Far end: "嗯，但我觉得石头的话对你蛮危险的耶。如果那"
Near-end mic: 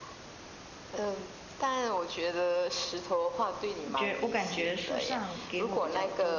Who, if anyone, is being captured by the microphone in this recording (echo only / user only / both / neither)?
both